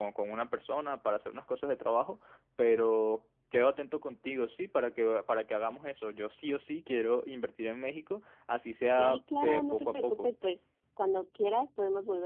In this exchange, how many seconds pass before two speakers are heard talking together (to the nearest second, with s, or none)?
9 s